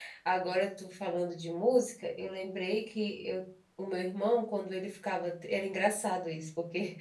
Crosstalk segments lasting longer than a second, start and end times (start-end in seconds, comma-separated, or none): none